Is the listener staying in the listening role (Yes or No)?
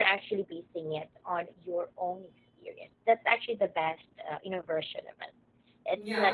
No